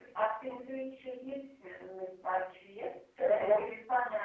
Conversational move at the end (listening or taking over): taking over